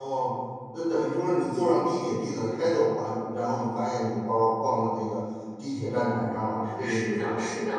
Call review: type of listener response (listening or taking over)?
taking over